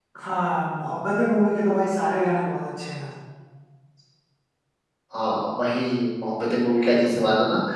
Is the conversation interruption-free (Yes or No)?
Yes